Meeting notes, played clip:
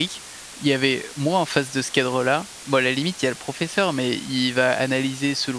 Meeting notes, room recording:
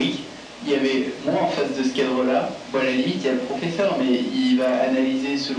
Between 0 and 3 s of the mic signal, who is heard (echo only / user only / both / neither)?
echo only